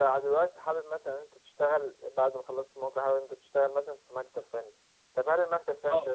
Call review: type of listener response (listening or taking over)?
listening